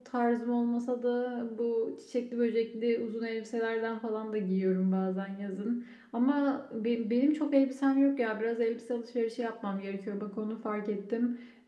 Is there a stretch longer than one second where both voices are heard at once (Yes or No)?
No